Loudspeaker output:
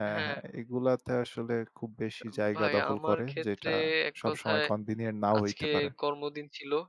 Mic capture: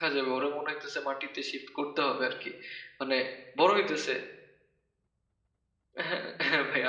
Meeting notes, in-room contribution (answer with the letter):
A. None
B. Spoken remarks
B